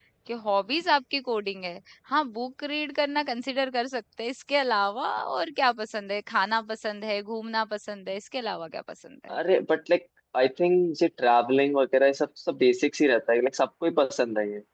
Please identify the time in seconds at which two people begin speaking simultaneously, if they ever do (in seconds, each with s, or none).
none